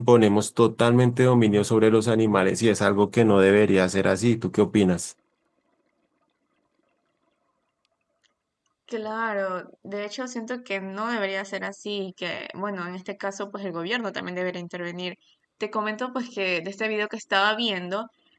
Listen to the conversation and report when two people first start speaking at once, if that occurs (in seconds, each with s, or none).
none